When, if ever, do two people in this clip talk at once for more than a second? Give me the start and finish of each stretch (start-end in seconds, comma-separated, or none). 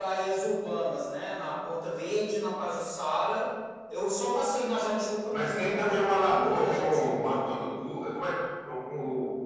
5.3-7.4